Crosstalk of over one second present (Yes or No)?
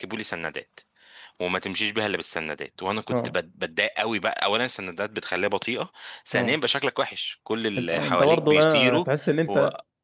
Yes